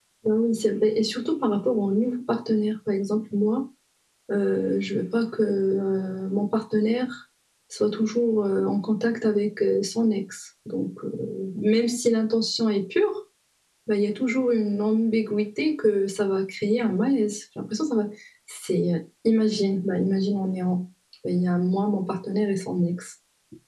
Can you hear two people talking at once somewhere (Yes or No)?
No